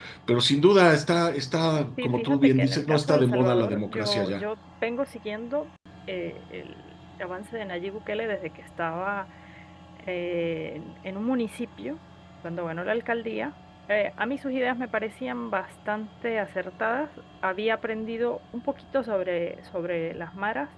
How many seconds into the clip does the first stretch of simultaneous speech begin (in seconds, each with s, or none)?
2.0 s